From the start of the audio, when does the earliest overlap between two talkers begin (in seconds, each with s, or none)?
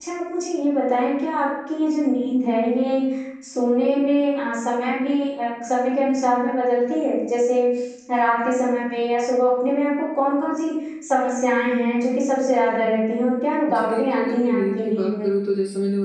13.7 s